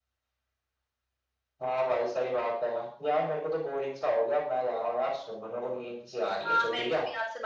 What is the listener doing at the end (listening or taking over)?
taking over